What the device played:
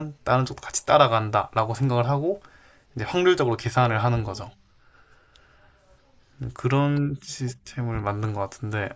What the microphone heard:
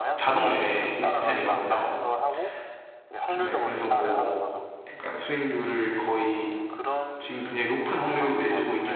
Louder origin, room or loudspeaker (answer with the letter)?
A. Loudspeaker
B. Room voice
B